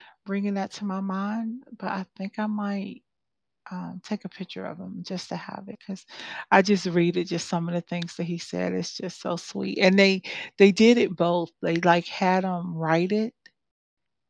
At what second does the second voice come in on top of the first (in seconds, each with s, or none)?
none